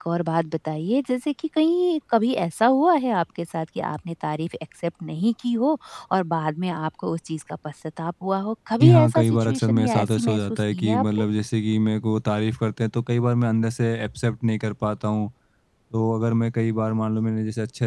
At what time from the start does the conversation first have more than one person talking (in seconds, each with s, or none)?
8.8 s